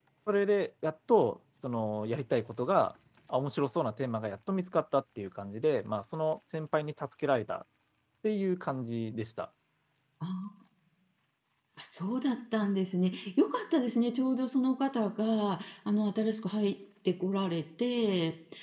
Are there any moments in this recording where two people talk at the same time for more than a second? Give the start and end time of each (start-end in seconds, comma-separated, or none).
none